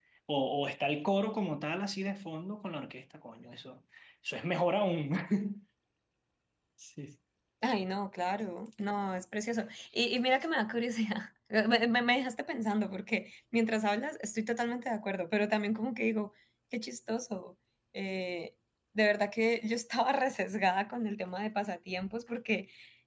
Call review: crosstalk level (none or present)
none